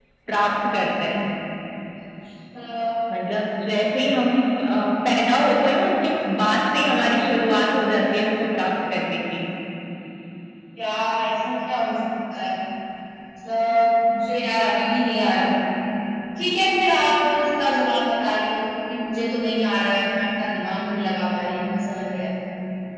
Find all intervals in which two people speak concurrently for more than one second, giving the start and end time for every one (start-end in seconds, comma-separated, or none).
none